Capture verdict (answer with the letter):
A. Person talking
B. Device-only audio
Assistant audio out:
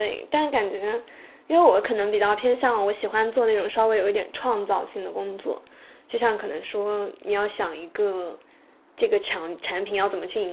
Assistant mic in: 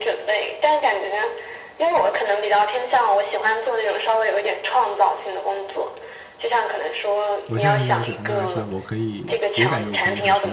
A